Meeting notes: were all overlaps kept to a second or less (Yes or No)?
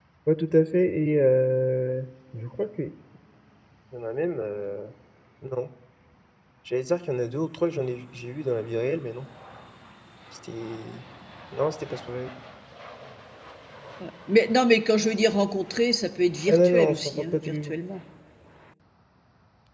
No